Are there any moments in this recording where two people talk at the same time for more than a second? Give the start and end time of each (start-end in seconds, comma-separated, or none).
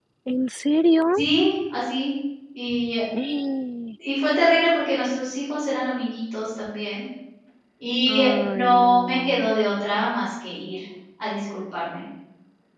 8.1-9.5